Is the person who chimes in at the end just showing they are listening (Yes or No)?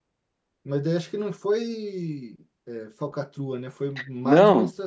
No